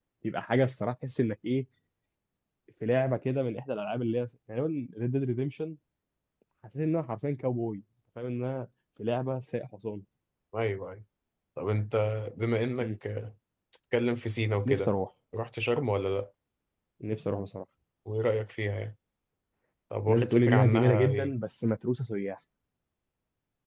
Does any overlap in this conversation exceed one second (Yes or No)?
Yes